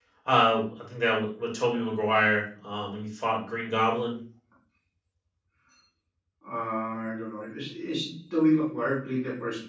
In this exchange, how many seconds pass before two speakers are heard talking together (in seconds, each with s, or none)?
none